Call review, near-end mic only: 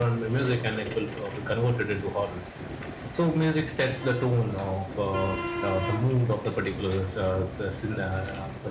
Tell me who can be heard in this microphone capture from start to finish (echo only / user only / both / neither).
echo only